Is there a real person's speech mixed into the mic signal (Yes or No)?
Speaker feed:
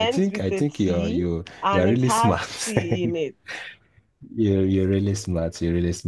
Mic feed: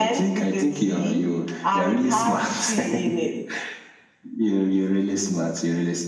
No